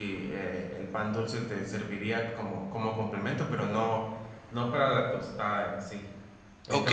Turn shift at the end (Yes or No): Yes